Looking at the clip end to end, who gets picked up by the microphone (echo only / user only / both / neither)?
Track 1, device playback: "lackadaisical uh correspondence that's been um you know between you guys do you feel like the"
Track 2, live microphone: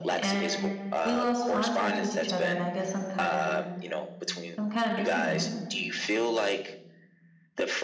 both